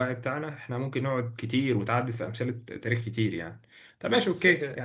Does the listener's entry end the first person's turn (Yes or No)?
No